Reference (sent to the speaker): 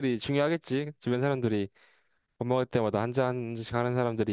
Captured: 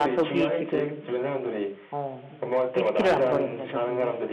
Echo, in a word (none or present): present